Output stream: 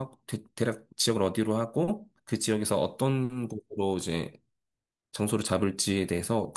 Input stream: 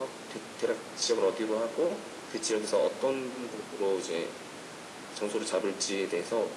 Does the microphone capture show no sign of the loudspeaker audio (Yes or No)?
No